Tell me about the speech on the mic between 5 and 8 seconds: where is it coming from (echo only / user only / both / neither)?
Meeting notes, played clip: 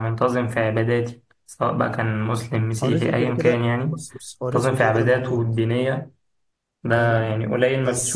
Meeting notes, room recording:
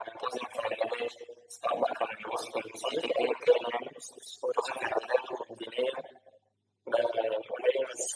echo only